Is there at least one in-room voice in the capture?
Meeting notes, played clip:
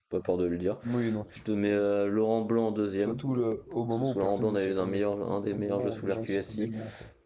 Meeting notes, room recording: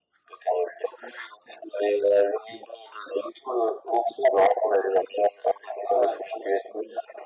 No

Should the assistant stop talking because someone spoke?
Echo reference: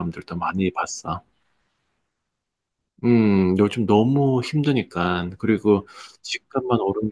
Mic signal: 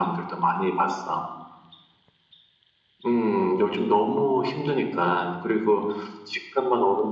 No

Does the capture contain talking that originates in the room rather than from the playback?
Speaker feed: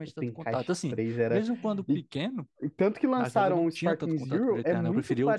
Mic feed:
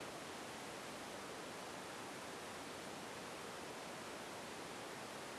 No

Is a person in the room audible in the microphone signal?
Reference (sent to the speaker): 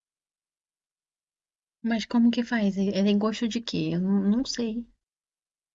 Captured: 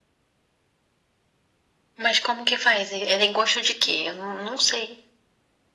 No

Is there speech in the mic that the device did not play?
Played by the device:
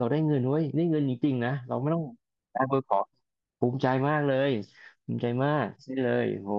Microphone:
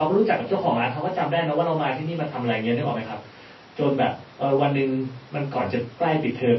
Yes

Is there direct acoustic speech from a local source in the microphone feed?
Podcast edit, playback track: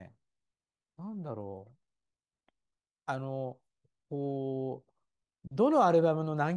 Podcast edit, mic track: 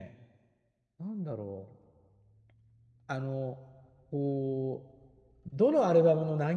No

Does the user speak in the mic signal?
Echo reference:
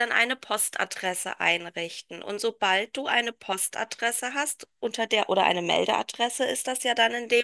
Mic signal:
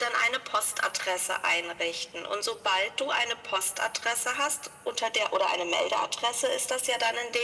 No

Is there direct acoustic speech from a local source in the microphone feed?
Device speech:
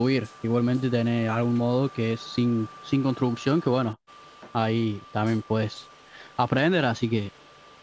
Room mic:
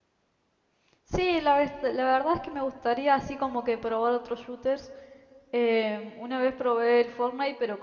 Yes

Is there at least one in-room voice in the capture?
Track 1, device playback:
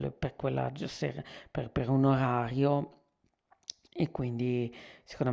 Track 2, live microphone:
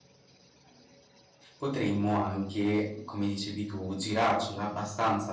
Yes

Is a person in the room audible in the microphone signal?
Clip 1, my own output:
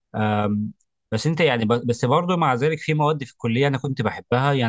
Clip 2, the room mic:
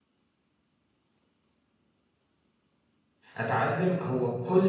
Yes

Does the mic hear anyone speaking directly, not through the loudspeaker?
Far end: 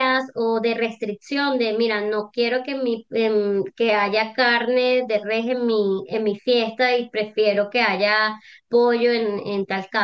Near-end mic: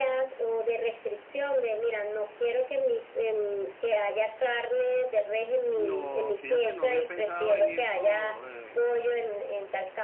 Yes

